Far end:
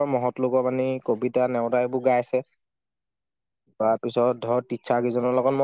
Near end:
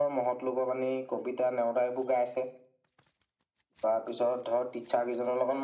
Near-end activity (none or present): none